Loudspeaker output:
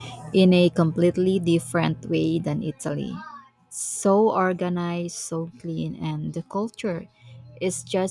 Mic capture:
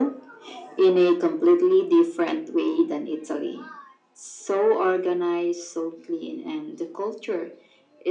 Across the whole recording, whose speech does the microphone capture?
echo only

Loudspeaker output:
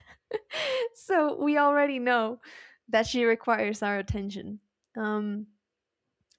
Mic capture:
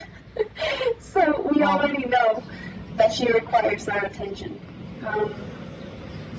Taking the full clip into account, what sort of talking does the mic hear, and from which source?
both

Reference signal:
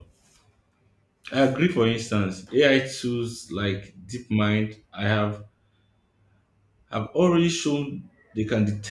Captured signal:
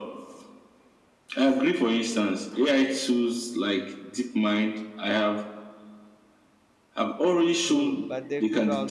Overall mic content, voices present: both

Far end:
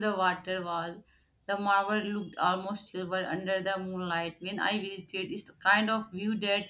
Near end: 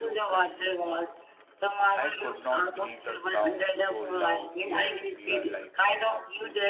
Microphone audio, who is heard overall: both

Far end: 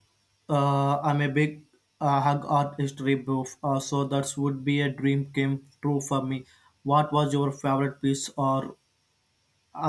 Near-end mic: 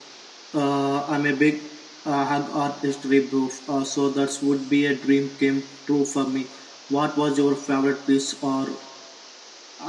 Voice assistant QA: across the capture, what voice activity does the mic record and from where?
echo only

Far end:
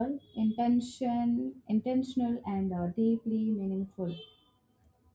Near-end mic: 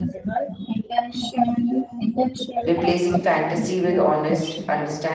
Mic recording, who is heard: both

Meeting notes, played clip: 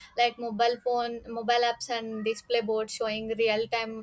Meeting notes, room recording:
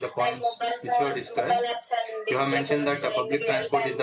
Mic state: both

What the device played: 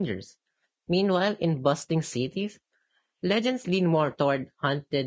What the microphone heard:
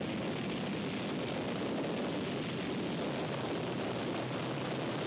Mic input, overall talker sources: neither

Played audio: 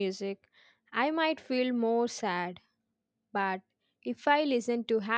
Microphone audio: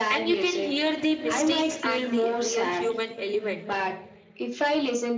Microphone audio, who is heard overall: both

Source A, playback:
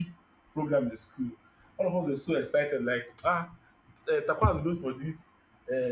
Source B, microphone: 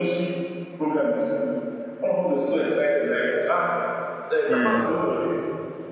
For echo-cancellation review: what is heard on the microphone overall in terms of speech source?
both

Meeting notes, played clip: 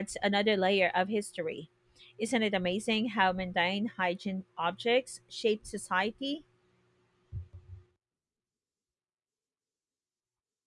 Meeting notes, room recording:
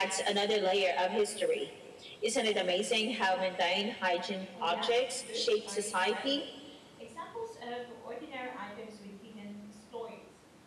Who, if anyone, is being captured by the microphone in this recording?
both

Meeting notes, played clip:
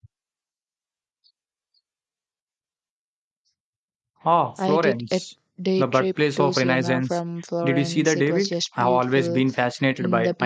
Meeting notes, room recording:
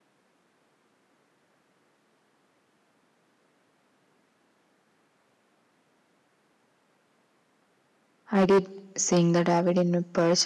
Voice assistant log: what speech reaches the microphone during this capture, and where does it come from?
user only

